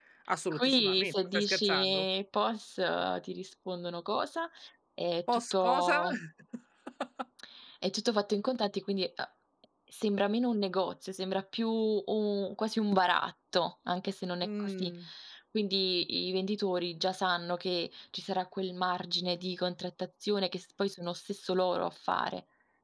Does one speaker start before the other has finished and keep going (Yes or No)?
Yes